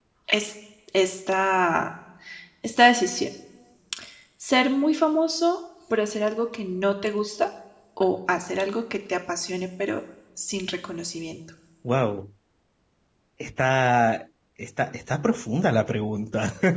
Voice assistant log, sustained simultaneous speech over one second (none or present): none